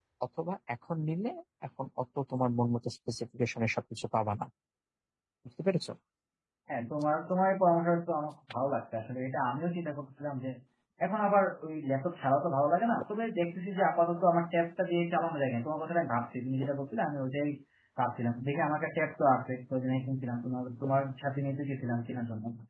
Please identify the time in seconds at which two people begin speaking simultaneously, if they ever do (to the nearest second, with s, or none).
none